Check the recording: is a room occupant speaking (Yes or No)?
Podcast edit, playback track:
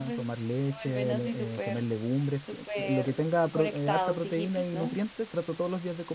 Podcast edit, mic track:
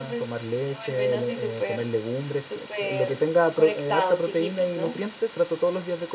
No